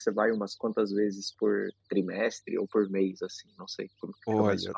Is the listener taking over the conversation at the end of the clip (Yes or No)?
Yes